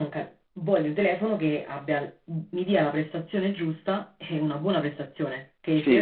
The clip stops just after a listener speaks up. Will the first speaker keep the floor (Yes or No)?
Yes